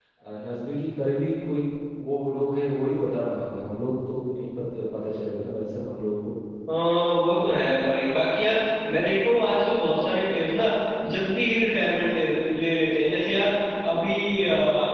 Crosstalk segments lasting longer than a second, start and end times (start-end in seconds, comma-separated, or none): none